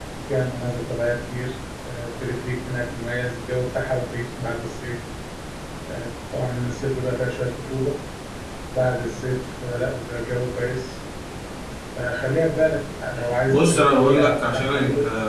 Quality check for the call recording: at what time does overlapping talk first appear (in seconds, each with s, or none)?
13.5 s